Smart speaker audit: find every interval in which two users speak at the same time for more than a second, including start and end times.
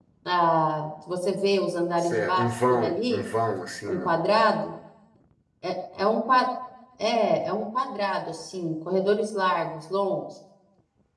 2.0-3.3

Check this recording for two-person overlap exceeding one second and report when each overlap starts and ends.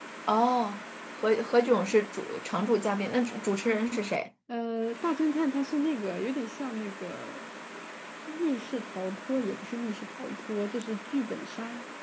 none

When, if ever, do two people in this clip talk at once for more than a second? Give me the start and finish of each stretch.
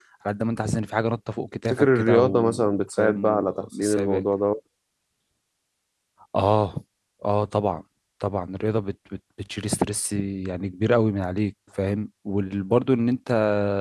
1.7-4.2

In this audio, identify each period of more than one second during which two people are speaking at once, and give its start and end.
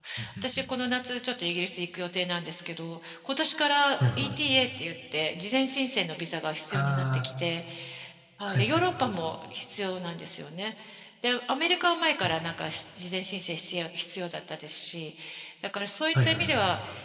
none

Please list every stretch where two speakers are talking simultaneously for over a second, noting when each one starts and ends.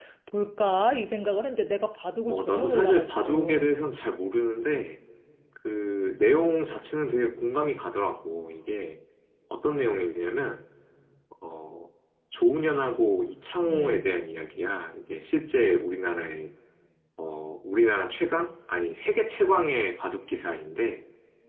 2.3-3.7

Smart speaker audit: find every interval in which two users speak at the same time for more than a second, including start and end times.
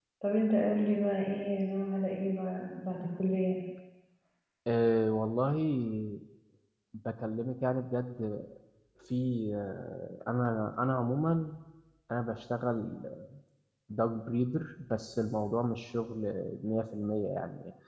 none

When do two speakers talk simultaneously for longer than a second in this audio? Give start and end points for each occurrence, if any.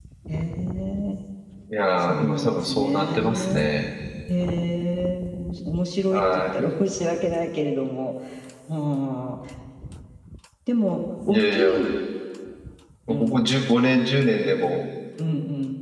2.0-3.7

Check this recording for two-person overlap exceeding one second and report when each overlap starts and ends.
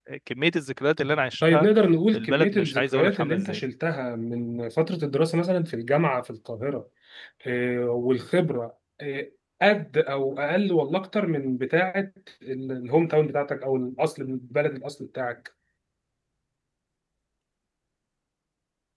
2.1-3.6

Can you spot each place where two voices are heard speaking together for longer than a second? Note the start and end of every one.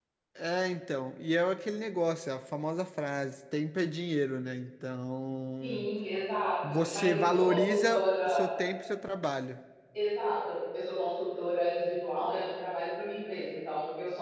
6.7-8.5

